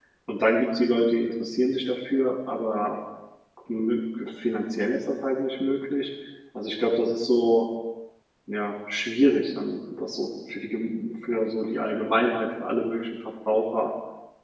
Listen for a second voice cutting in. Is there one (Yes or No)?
No